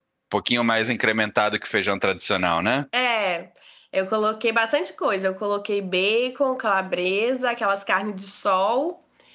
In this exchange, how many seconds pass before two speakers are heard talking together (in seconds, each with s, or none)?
none